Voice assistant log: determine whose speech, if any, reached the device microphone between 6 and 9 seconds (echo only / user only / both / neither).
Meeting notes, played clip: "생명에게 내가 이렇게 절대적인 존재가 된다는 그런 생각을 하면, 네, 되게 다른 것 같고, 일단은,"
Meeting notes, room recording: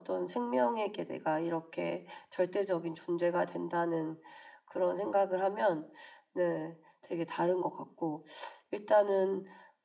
echo only